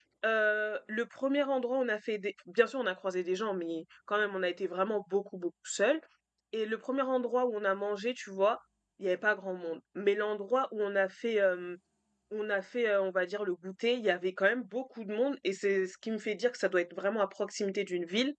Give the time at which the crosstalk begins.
none

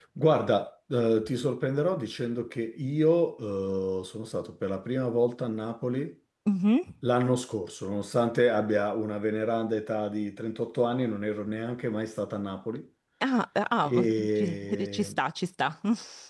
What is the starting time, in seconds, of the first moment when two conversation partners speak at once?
14 s

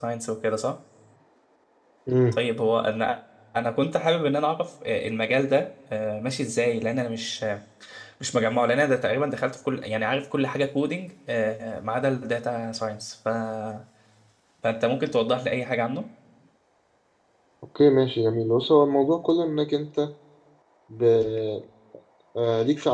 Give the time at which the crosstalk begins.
none

